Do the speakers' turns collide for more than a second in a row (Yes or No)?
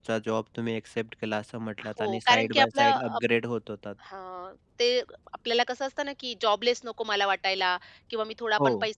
Yes